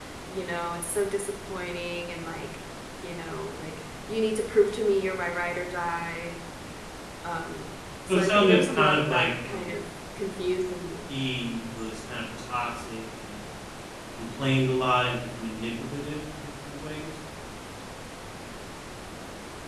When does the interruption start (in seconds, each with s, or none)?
8.1 s